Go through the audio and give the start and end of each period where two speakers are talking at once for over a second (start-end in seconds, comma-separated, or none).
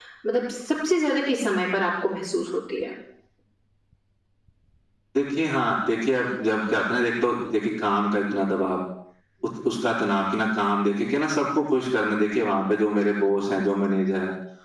none